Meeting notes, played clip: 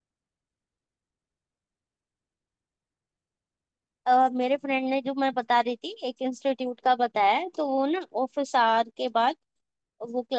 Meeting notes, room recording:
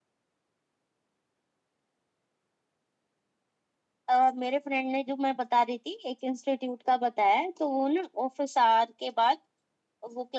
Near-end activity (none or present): none